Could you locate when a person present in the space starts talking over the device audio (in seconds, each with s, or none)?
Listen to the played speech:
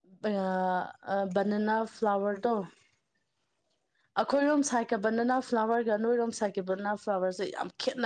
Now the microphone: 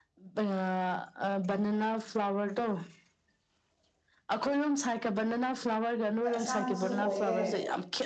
6.2 s